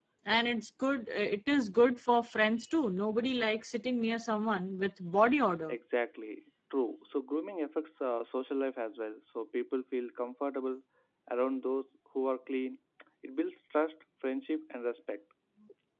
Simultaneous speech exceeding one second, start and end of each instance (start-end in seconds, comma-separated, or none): none